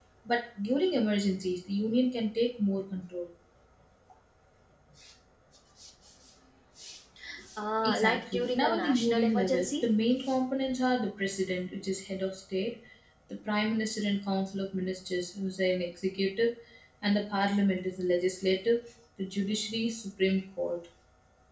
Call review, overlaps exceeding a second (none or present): present